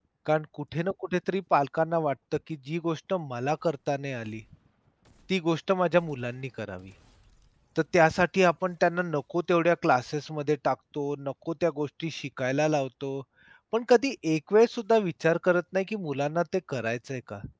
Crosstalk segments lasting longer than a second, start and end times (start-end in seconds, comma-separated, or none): none